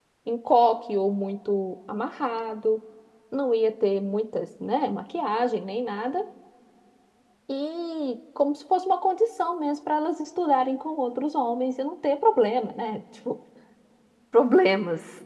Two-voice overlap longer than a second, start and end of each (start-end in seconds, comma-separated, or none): none